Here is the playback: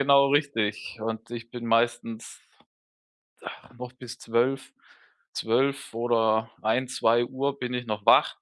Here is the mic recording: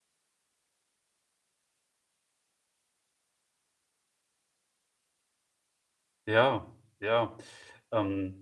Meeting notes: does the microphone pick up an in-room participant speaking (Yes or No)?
Yes